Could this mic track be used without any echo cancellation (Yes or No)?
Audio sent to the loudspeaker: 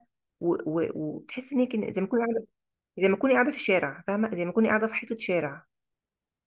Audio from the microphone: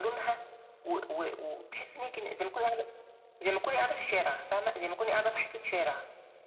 No